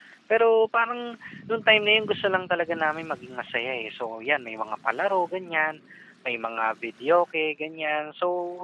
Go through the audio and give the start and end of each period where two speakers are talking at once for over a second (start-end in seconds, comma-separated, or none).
none